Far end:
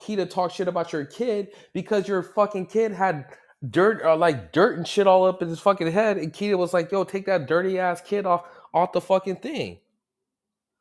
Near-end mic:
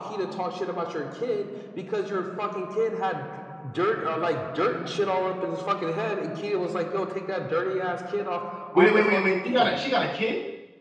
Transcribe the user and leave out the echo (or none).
Wait, wait, wait, wait. She got a she got a kid?